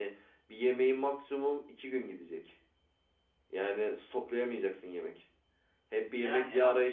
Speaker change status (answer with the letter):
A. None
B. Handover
A